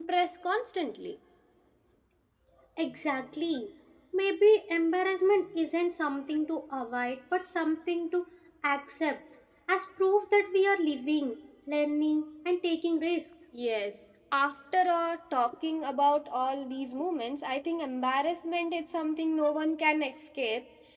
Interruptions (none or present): none